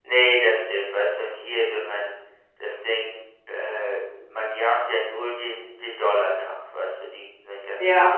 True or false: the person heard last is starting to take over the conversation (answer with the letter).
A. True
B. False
A